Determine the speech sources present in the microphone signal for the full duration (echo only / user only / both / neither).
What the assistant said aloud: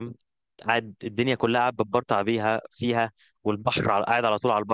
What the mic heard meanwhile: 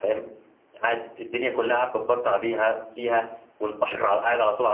echo only